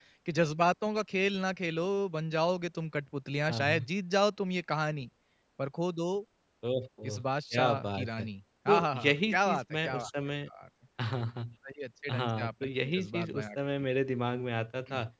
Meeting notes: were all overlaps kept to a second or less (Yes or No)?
No